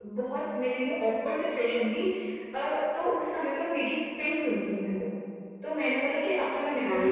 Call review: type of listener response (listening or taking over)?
listening